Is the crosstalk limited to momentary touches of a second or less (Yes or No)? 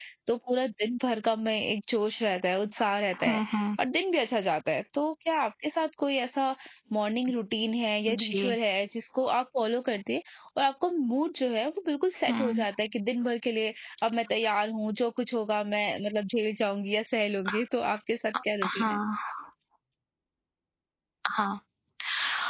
Yes